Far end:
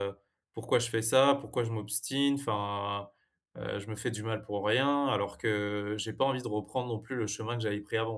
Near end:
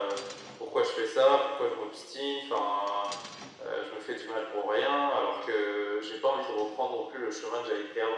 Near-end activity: none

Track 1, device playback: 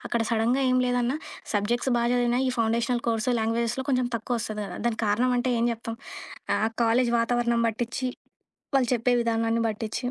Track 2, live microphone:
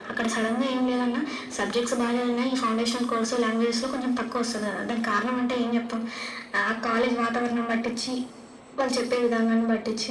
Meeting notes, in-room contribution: none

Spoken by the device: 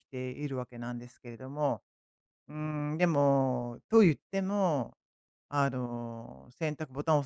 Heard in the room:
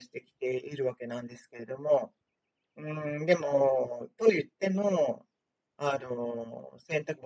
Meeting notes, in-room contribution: none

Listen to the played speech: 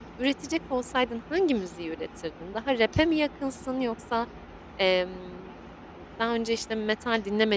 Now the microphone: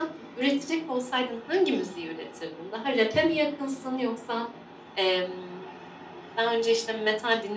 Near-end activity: none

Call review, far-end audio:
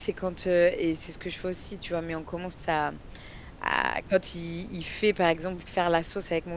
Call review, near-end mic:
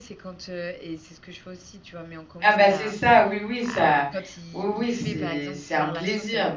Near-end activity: present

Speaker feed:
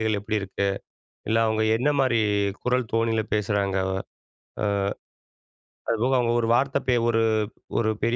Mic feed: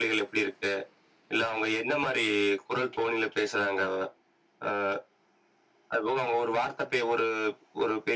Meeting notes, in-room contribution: none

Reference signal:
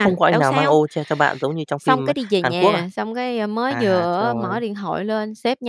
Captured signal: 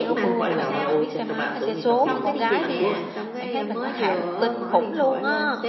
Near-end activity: present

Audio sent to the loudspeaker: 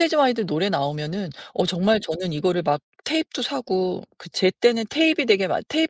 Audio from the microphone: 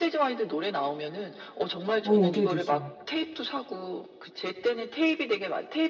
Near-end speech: present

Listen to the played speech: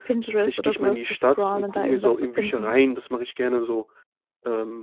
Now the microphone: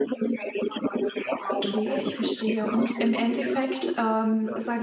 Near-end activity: present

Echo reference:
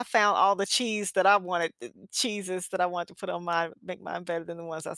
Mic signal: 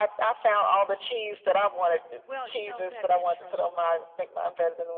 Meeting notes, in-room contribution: present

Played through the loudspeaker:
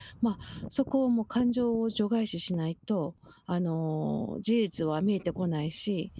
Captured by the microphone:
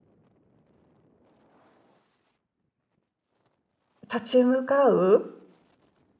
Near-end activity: present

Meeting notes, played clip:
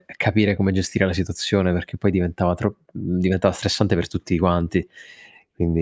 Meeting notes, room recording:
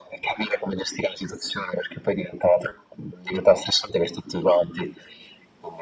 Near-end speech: none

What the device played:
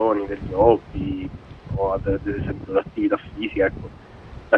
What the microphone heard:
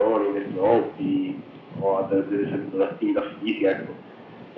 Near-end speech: none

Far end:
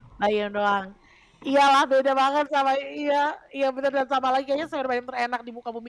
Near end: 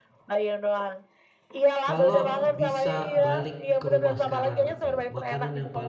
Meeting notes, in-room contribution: present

